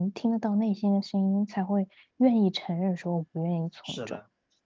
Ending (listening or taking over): taking over